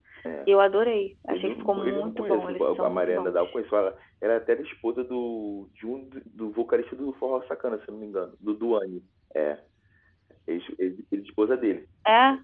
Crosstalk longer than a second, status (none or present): present